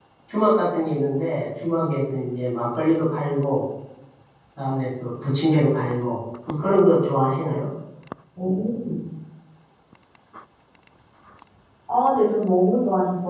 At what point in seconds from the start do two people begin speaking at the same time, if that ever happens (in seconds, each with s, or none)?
none